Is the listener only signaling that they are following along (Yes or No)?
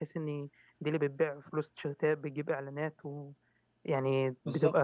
Yes